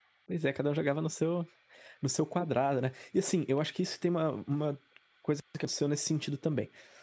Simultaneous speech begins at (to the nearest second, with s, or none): none